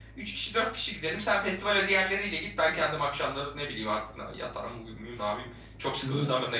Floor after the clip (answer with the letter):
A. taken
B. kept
A